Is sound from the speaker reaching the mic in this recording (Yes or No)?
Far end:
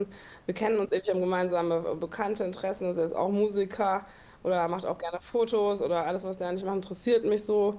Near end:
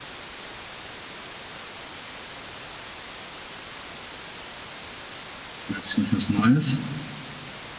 No